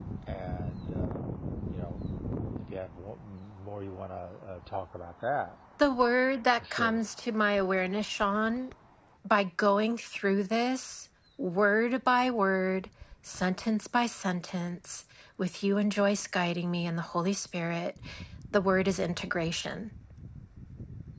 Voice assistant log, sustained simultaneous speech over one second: none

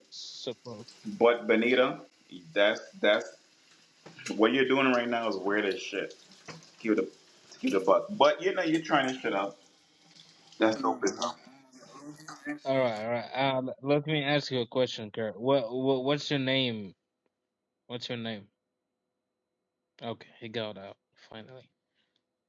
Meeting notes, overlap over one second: none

